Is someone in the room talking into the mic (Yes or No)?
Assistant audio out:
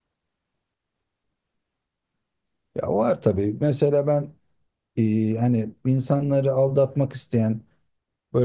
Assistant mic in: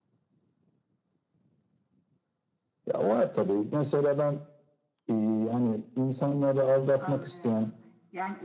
Yes